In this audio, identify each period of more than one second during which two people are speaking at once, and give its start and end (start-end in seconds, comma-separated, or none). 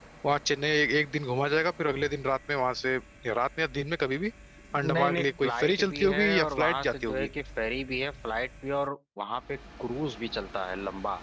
4.8-7.3